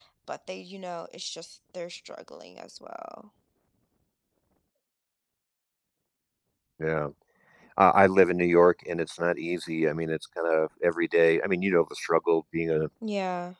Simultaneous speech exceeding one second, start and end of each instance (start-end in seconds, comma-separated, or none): none